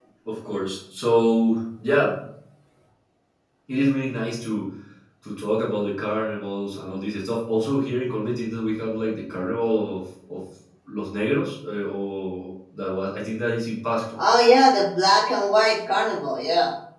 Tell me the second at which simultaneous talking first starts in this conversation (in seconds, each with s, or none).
none